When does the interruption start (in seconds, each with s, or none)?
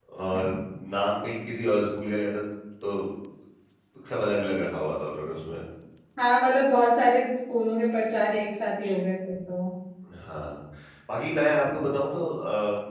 none